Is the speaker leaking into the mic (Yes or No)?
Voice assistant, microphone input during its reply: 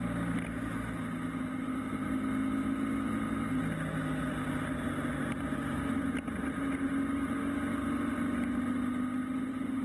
No